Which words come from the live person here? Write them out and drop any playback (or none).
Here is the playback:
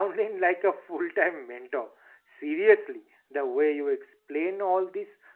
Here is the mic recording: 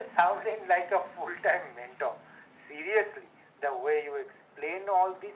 none